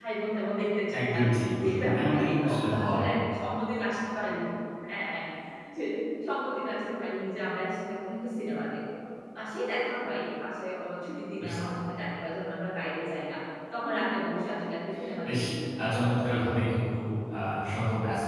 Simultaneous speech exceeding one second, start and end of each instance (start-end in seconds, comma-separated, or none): 1.6-3.1